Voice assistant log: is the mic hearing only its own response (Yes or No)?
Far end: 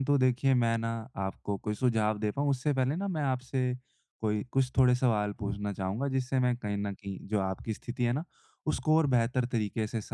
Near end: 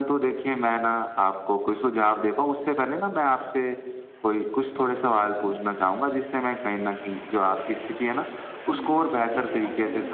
No